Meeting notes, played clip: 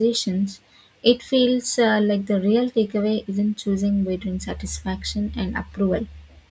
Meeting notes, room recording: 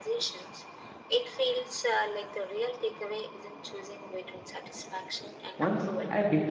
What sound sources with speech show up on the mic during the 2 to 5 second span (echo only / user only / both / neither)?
echo only